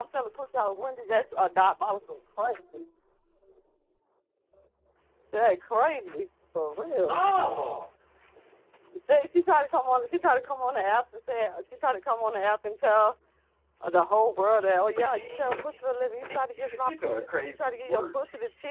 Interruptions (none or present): present